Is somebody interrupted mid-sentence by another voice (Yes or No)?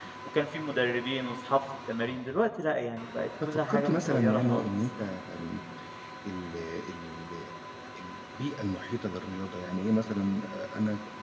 Yes